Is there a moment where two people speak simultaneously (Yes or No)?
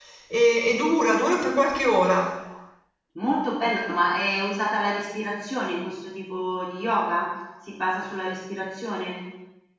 No